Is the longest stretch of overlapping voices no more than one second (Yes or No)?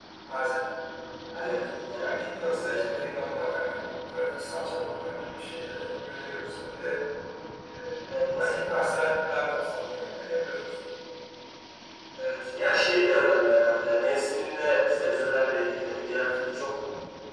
Yes